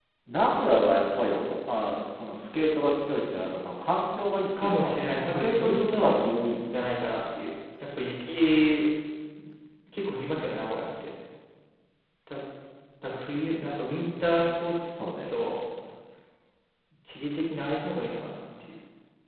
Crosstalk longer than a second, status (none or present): present